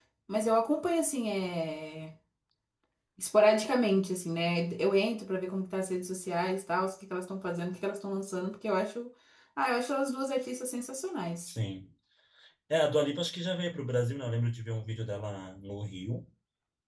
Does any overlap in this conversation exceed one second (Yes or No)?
No